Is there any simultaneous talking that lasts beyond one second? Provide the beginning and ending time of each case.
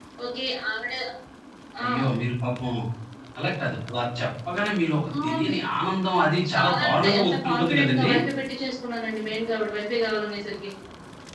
6.5-8.1

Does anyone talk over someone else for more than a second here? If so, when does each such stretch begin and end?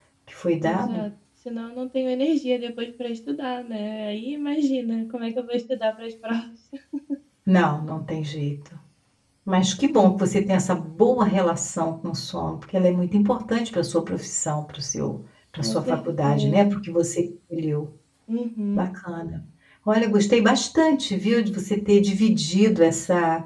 15.6-16.8

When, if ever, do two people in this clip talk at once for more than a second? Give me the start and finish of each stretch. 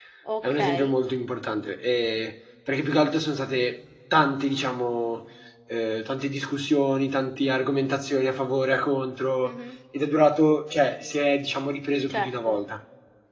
none

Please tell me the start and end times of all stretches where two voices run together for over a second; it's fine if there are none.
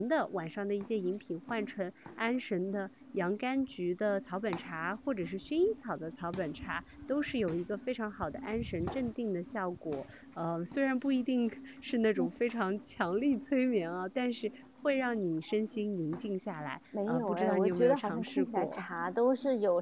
17.1-18.8

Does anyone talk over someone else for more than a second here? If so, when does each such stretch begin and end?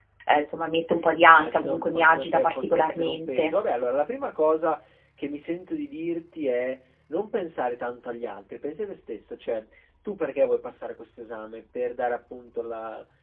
1.2-3.5

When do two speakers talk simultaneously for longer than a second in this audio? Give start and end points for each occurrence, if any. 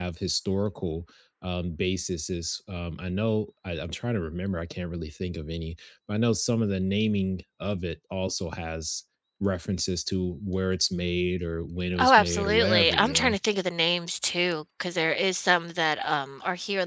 12.0-13.4

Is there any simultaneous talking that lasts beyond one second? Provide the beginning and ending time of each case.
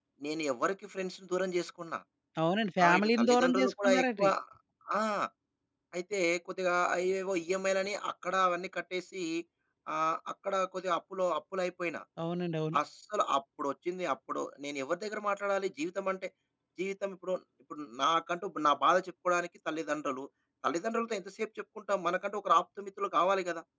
2.8-4.3

